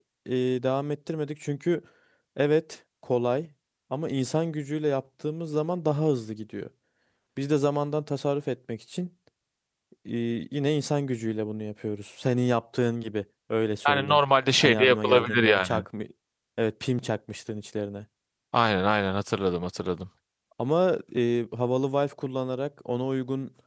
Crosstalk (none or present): present